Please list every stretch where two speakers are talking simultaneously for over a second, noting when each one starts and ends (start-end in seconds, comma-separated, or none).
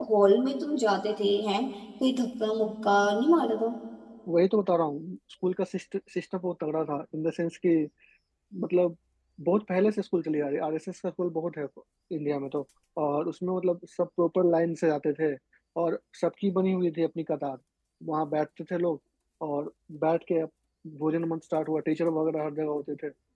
none